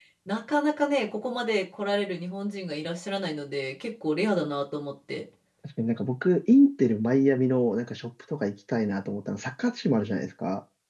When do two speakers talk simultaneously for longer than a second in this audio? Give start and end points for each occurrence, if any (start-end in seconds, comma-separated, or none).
none